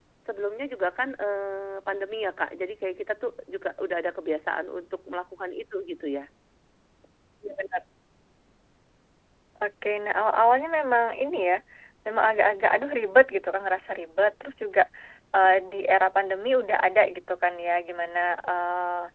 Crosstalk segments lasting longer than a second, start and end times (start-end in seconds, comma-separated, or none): none